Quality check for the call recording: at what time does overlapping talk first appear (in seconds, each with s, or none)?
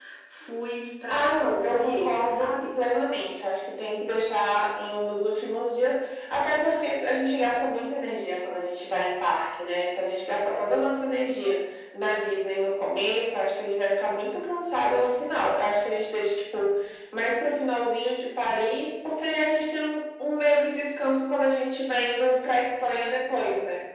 1.1 s